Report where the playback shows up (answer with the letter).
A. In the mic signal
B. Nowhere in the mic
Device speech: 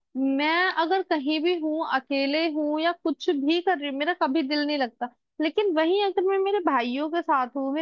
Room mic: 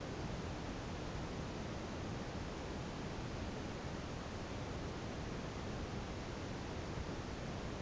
B